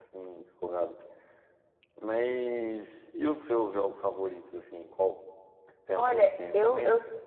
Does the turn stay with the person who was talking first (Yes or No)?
No